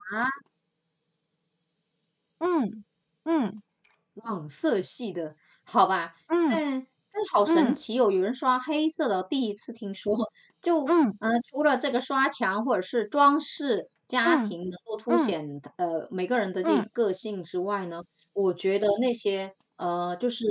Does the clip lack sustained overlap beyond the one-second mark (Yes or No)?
Yes